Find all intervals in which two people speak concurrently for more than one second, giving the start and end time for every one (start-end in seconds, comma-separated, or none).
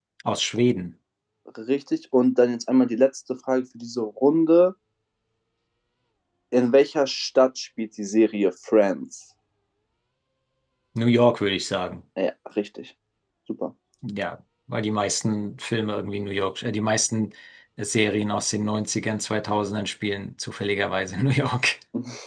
none